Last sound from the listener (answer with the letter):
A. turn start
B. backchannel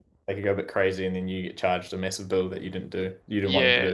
A